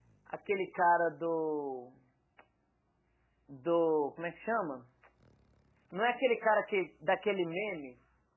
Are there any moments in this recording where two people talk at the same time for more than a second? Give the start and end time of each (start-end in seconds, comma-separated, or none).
none